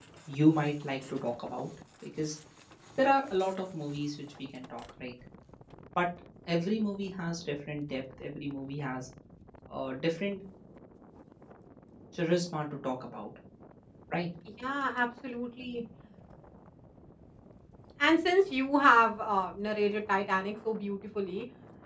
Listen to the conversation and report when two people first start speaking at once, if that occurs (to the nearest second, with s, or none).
none